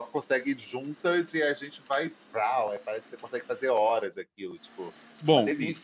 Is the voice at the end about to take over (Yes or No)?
Yes